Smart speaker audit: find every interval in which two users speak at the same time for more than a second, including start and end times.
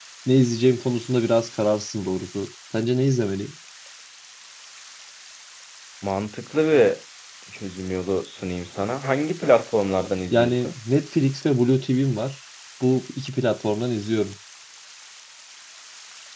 none

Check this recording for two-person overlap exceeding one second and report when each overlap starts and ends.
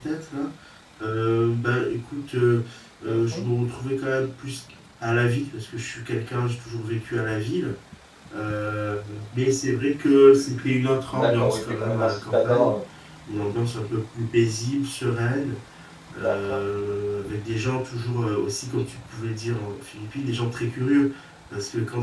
11.1-12.8

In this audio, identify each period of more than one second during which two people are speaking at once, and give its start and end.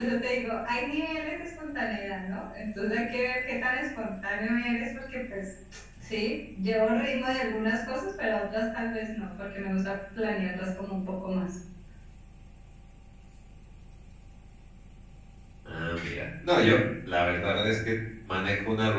none

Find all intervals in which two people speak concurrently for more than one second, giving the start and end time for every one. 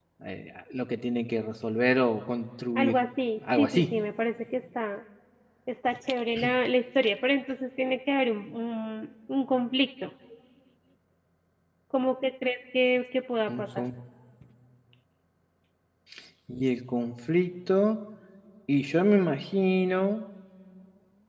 none

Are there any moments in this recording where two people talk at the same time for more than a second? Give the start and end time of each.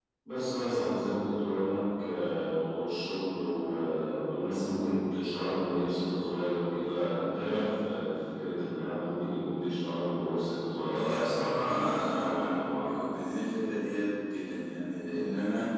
10.8-13.1

